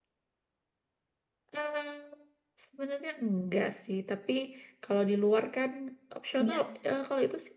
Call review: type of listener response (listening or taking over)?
listening